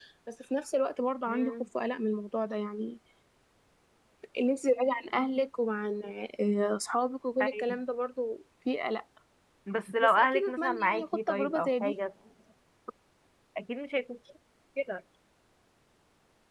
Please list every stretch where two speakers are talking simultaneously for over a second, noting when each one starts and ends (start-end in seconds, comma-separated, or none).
10.0-11.9